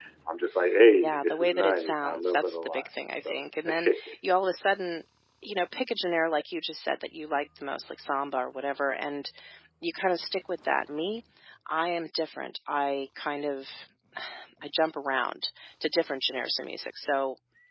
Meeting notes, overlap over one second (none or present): present